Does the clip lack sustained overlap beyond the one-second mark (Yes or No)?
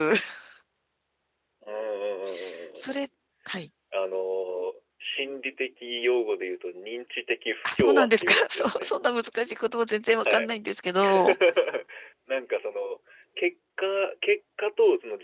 No